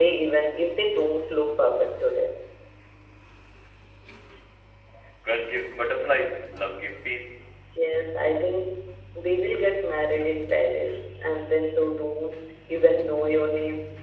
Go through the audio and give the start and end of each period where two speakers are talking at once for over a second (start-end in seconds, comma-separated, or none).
none